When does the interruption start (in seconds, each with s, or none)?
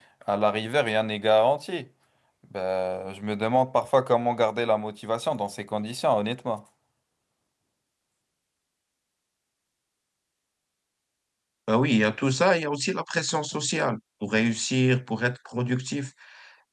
none